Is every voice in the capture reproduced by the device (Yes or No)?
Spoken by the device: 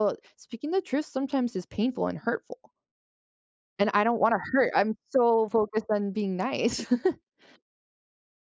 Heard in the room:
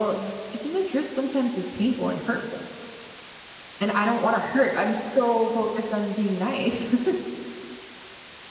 Yes